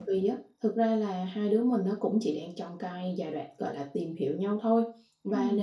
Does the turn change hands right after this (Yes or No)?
No